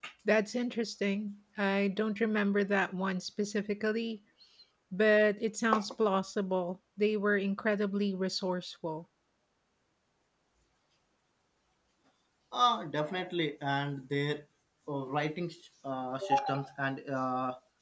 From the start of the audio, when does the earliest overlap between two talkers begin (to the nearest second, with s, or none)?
none